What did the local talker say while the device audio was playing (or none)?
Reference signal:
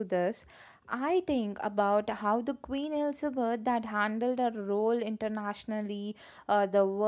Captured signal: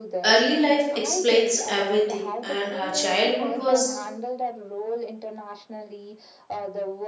early life explains everything and her childhood was